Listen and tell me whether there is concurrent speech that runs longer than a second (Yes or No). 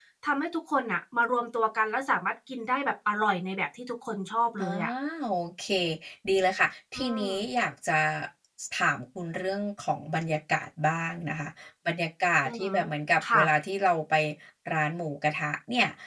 No